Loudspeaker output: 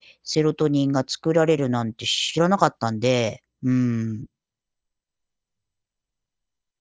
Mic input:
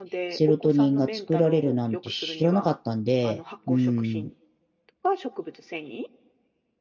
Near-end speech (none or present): present